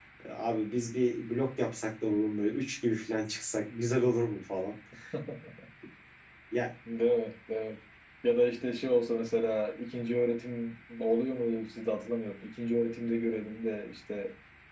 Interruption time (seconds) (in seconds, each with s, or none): none